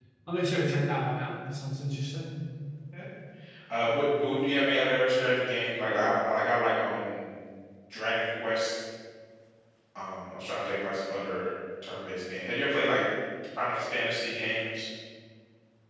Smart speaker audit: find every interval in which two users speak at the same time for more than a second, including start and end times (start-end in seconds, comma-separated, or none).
none